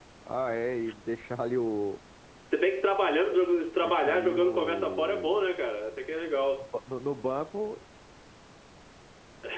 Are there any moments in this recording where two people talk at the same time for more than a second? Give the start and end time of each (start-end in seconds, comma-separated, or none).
3.8-5.5